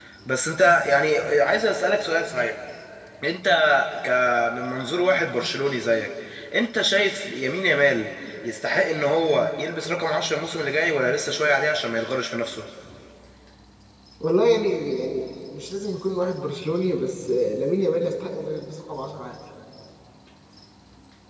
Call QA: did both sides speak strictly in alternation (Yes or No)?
Yes